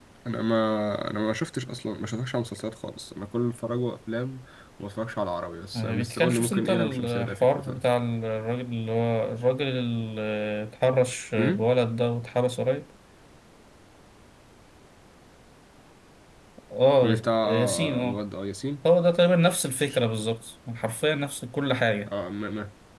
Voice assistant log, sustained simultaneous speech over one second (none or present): present